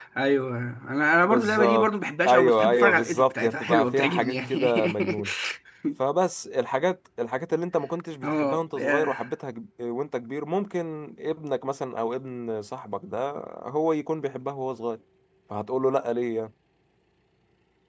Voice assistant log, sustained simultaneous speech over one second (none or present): present